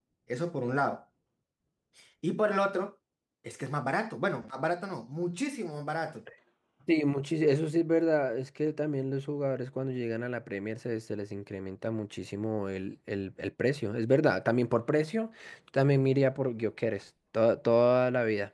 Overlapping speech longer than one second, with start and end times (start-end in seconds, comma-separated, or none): none